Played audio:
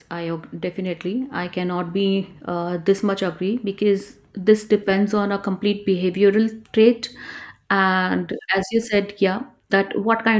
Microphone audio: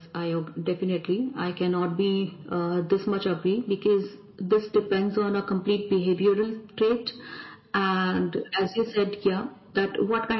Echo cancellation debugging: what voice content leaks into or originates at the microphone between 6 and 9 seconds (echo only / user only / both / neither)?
echo only